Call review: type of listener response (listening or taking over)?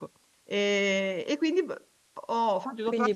taking over